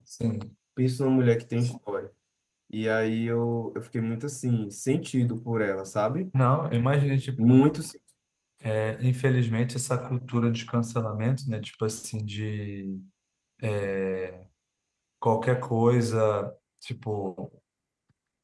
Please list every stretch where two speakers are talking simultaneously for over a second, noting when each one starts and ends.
none

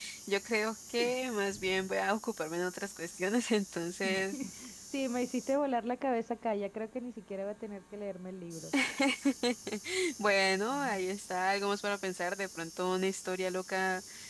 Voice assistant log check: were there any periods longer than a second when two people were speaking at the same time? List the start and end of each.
none

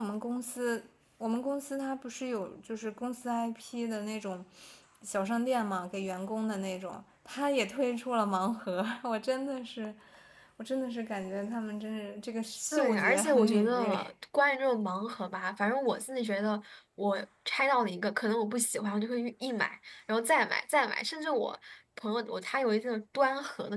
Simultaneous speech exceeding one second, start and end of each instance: 12.7-14.0

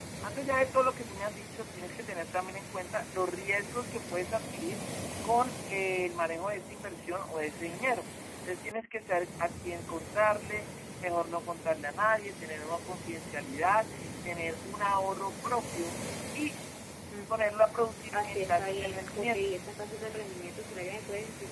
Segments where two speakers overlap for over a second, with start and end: 18.1-19.4

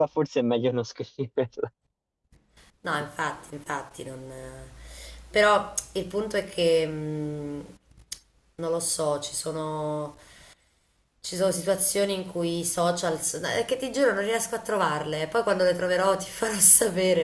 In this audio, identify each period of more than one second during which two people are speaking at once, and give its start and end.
none

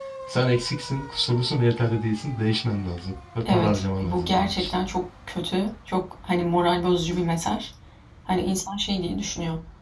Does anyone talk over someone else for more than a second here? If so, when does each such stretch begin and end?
3.4-4.7

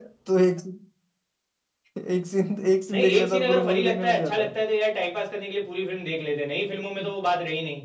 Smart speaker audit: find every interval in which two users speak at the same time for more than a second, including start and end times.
2.9-4.5

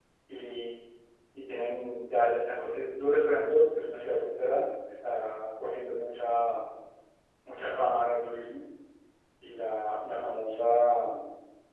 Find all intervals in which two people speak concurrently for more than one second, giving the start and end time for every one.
none

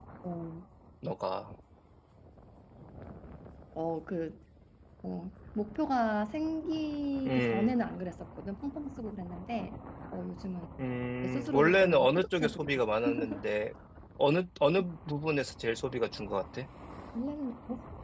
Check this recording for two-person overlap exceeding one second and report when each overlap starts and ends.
11.2-12.7

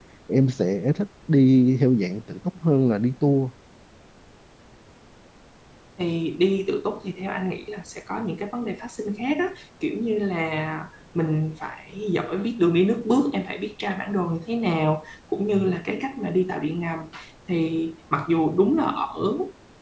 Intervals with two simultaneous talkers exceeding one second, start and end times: none

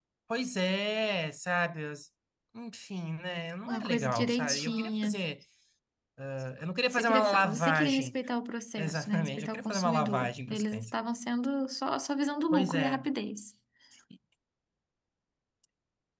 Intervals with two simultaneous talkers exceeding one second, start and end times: 3.7-5.2, 6.9-8.1, 8.8-10.9

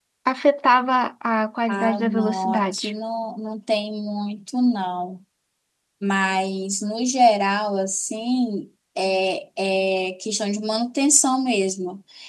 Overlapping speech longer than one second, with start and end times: 1.7-2.9

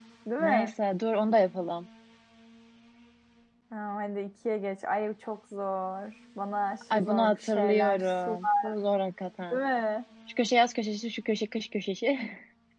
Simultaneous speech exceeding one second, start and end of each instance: 6.9-8.7

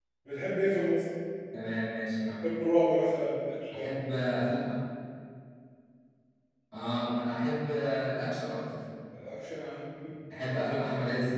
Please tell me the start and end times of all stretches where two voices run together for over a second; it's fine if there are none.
none

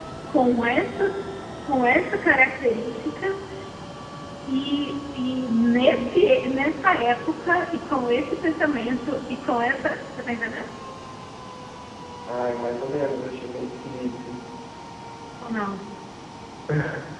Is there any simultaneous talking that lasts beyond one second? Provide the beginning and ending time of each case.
none

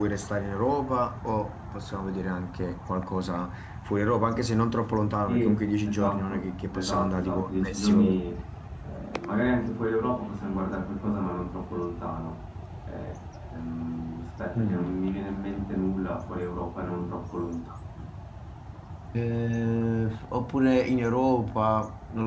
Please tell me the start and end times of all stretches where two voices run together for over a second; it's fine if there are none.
5.2-8.2

